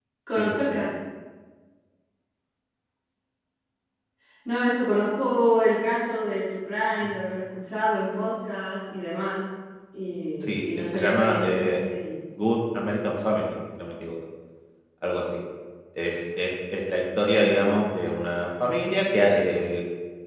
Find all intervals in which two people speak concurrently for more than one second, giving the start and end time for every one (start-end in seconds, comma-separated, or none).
10.4-11.8